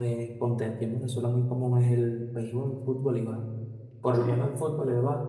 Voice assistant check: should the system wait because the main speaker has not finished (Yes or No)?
Yes